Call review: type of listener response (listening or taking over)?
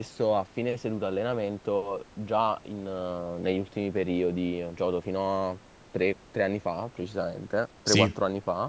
listening